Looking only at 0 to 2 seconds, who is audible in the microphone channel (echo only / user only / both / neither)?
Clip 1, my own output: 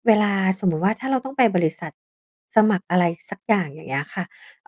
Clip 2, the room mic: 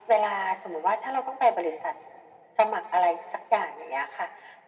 echo only